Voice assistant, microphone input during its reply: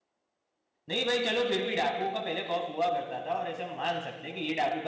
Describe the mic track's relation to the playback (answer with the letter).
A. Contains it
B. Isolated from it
B